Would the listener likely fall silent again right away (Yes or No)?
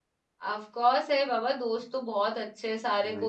Yes